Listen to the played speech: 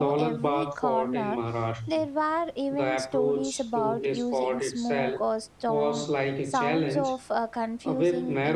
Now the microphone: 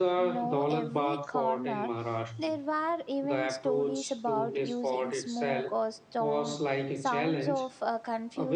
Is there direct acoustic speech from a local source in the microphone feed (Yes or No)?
No